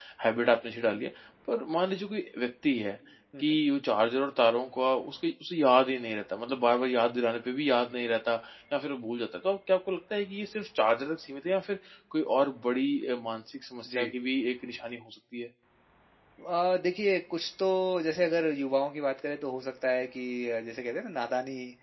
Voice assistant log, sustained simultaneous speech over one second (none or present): none